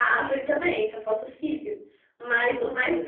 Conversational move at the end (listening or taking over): listening